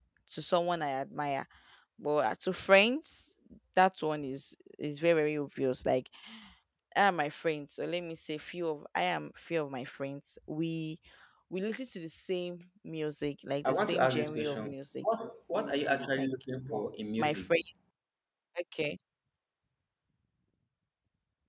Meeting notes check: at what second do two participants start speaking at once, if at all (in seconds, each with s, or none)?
13.6 s